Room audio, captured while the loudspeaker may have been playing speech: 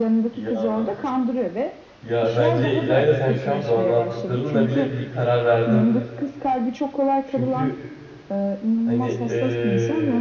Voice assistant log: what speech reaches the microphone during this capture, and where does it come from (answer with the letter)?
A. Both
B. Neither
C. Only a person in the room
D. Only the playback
A